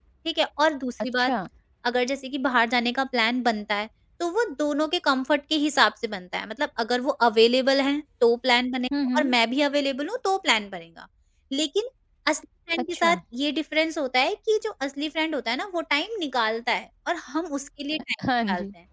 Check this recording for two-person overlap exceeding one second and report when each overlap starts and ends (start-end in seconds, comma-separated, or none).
none